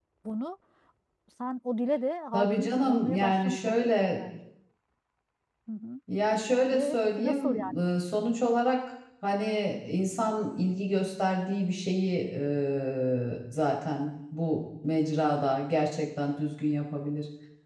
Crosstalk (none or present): present